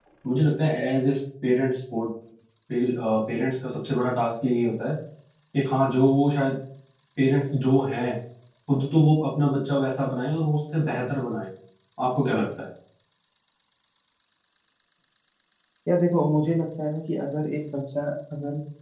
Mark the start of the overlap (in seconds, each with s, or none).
none